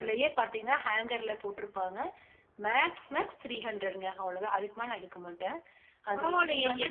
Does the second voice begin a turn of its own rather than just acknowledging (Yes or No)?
Yes